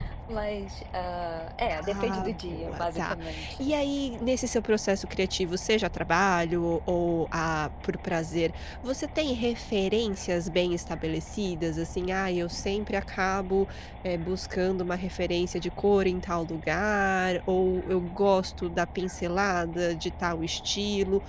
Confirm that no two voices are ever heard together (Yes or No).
No